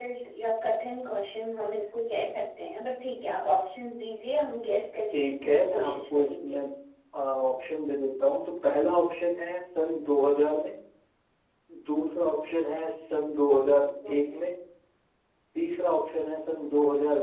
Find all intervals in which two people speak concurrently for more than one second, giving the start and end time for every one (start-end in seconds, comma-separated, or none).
5.1-6.6